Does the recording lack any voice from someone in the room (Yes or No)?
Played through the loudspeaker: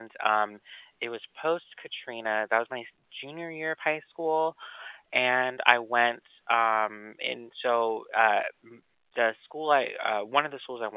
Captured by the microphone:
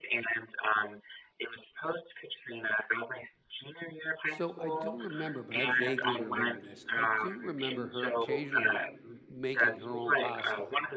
No